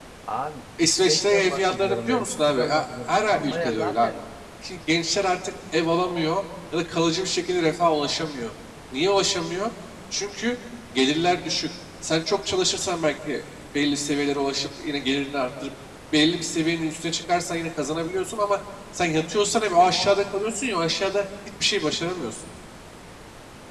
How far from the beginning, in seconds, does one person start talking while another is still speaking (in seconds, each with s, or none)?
0.8 s